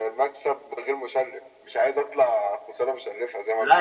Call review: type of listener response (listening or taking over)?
taking over